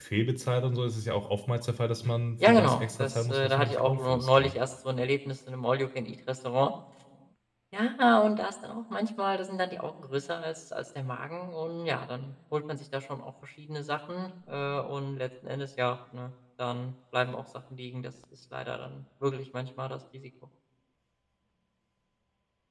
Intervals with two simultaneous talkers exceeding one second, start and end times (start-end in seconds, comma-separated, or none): 2.5-4.6